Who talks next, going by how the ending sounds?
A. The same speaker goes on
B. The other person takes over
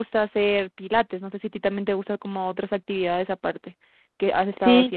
B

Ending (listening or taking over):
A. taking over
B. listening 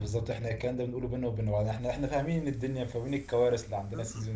A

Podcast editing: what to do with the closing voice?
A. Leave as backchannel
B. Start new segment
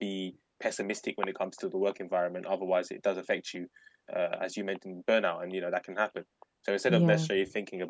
A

